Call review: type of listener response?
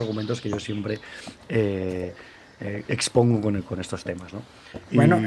taking over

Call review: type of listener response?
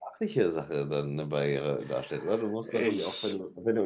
listening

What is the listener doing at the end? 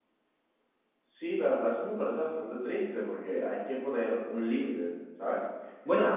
listening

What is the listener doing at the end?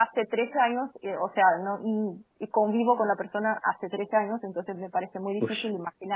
listening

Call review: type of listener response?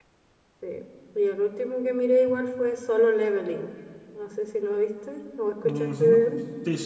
taking over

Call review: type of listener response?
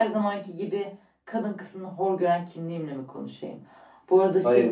listening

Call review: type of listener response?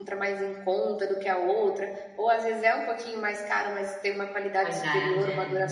listening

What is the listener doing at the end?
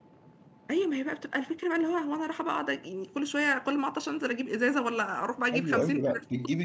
taking over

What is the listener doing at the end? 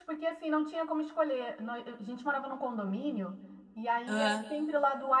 listening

